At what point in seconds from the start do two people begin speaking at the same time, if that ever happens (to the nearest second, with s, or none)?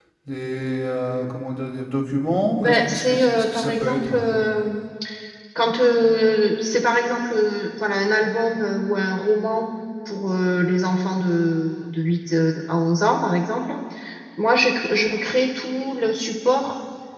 3 s